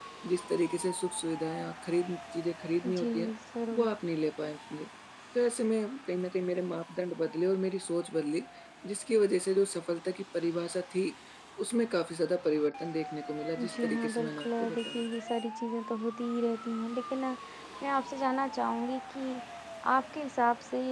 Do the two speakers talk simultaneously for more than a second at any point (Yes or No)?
Yes